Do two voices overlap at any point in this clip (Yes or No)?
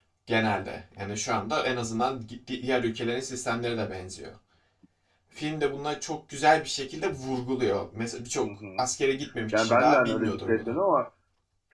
Yes